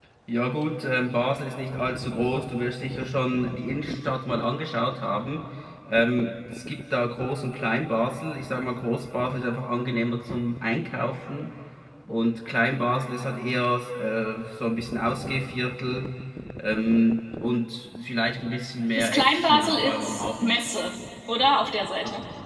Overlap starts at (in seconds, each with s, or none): 18.9 s